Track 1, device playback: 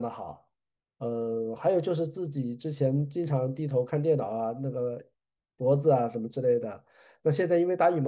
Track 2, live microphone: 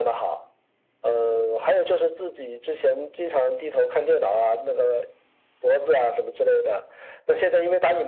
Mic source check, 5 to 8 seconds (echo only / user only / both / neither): echo only